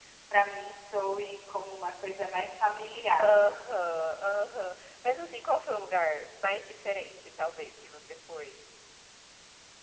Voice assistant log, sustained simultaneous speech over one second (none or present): none